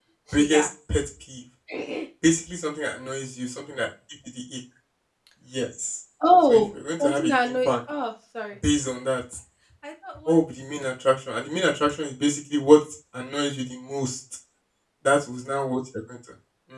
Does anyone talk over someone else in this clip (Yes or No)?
Yes